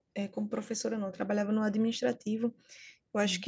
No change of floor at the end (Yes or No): Yes